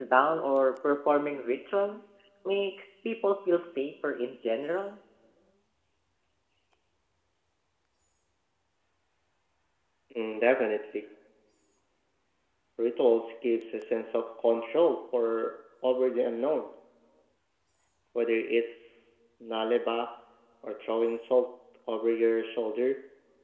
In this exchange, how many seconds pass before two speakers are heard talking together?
none

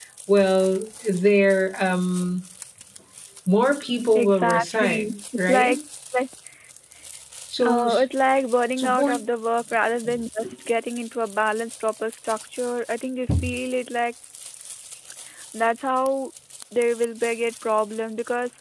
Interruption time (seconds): 4.1 s

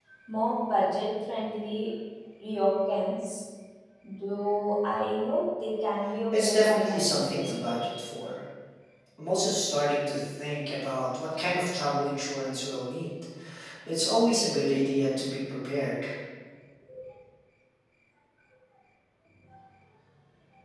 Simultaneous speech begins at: 6.3 s

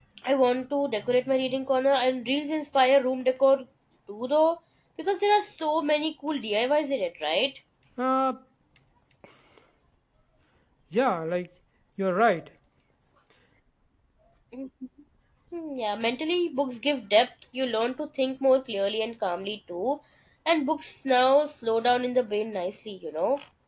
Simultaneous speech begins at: none

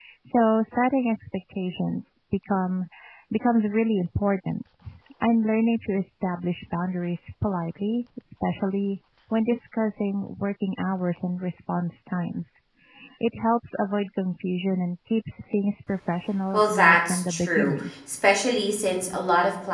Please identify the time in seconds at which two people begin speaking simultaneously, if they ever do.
16.5 s

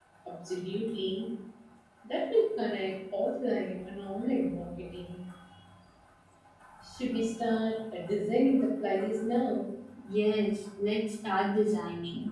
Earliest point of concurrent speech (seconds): none

